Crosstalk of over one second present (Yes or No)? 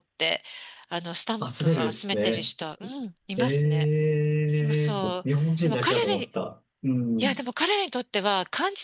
Yes